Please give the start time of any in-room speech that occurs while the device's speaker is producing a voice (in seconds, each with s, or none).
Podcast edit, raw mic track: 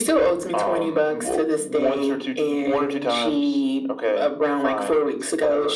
none